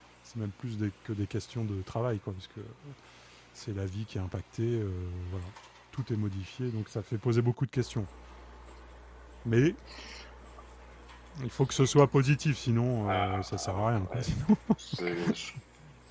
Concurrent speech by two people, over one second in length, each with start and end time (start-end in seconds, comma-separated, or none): 13.0-14.3